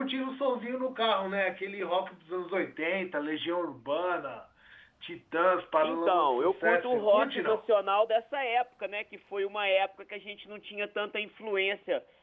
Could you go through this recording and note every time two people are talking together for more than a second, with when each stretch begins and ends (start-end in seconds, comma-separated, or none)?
5.8-7.6